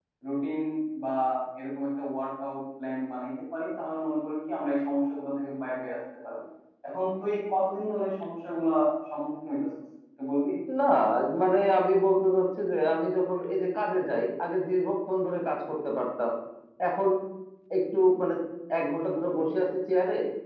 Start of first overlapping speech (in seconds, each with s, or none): none